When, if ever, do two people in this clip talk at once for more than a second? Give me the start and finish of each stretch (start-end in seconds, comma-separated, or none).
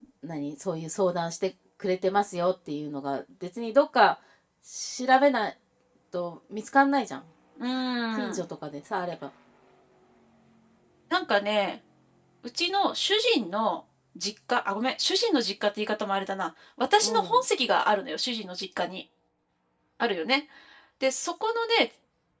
none